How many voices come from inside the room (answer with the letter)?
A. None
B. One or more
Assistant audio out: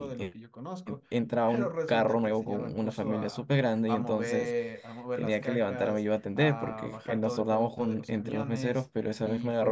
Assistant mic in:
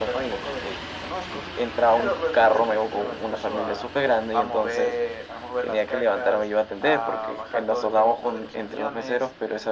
A